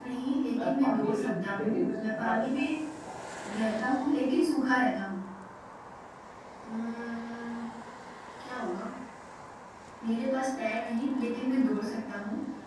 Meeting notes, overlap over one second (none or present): present